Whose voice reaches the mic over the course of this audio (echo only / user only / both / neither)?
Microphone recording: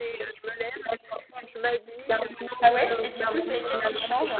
both